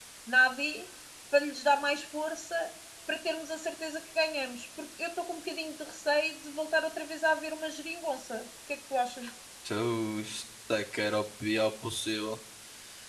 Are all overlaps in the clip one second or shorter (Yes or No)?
Yes